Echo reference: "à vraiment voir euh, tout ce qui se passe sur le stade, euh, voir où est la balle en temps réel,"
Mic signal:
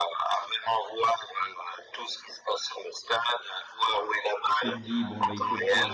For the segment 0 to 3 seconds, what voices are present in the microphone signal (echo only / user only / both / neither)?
echo only